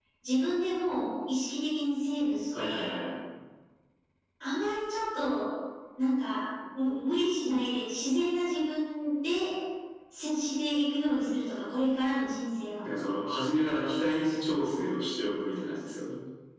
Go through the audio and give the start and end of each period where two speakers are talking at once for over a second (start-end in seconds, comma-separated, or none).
none